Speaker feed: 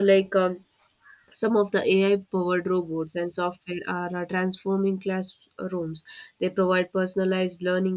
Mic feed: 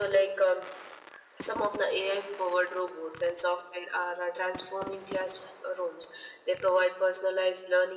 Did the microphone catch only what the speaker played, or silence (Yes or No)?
Yes